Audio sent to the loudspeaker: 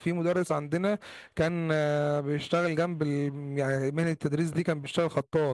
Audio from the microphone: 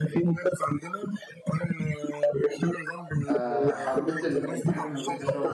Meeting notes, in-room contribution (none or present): present